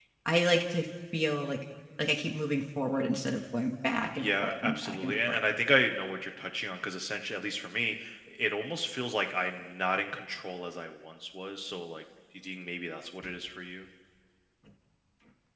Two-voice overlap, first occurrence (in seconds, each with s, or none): 4.2 s